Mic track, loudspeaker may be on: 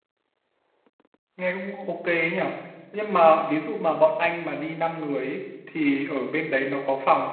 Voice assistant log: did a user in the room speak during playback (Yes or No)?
Yes